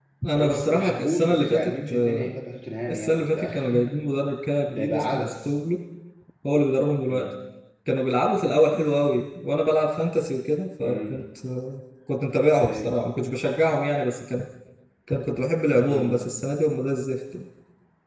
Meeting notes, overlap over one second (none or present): present